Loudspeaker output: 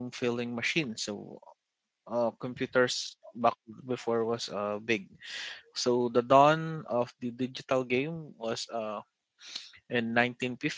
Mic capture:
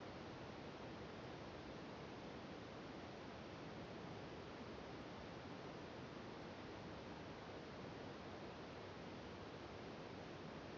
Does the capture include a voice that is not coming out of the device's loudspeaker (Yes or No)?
No